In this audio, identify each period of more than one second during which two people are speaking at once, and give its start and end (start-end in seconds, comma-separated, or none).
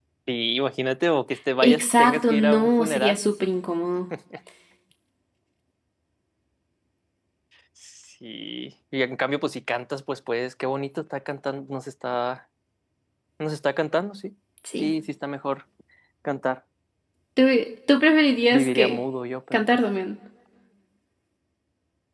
1.6-3.2